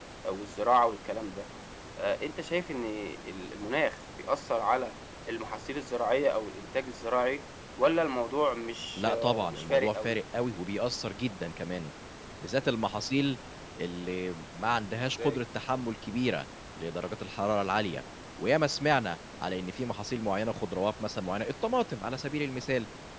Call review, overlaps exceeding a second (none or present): present